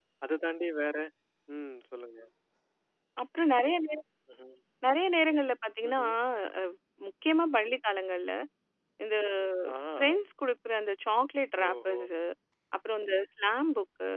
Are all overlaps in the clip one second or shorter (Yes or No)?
Yes